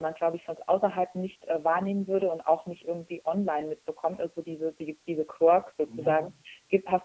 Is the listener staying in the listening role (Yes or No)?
Yes